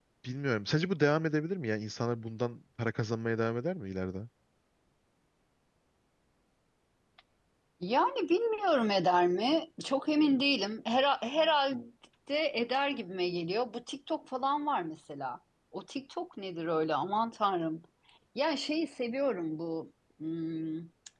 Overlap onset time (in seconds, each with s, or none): none